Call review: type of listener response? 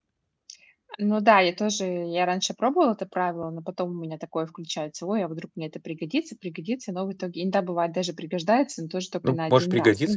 taking over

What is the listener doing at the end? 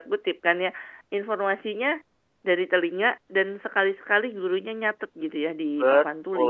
taking over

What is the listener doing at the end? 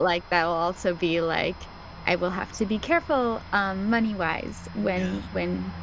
listening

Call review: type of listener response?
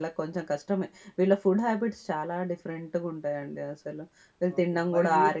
taking over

